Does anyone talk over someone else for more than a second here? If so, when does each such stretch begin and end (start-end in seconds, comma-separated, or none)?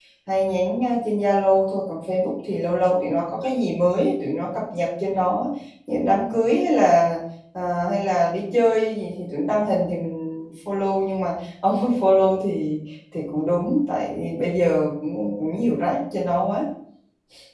none